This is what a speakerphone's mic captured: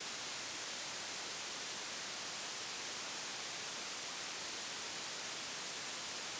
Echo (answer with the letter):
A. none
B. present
A